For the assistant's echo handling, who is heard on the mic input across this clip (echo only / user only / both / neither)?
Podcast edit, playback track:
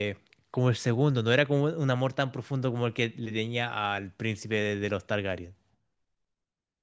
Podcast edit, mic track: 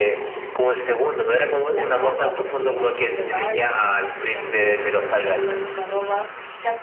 both